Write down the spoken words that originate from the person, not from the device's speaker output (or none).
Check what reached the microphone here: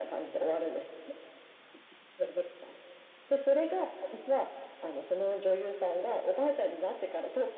none